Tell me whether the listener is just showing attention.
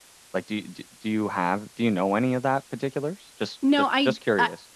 No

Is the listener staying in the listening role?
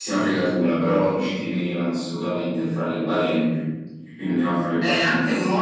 No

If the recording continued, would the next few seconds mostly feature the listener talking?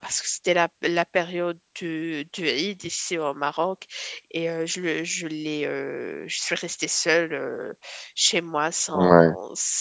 No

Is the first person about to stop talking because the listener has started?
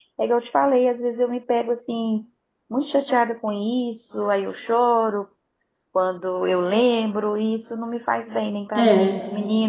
No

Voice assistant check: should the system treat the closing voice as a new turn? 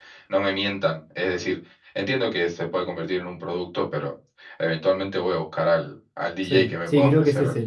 Yes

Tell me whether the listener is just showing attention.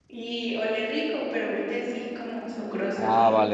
No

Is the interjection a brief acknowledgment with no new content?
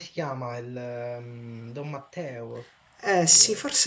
No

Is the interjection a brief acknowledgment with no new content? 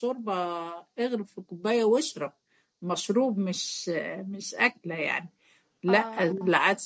Yes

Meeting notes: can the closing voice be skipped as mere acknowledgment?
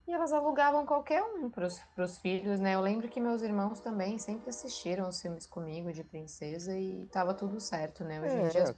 Yes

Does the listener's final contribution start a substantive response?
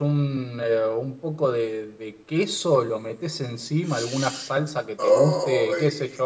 No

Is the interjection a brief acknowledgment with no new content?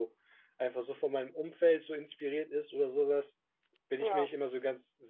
Yes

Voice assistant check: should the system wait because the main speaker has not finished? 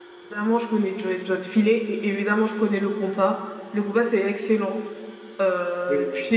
Yes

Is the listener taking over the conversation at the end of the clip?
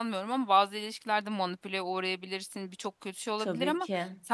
No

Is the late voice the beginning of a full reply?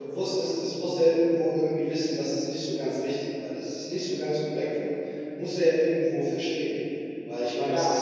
No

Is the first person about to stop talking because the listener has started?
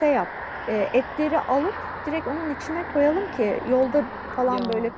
No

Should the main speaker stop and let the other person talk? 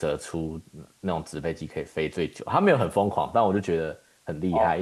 No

